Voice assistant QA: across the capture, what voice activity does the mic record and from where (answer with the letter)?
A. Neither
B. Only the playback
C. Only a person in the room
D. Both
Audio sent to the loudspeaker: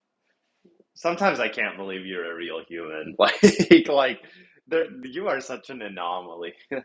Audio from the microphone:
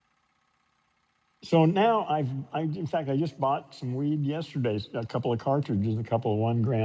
C